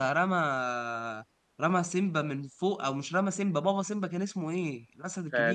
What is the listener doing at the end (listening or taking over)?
taking over